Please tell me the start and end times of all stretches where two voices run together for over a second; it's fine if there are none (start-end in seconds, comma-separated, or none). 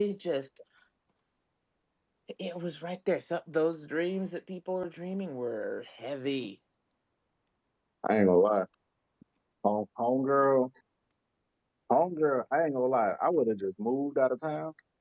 none